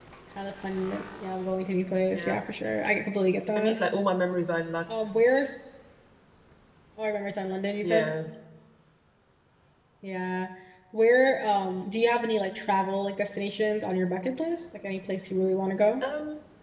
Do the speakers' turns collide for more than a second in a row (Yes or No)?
No